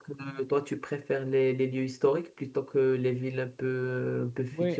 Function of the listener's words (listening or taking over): taking over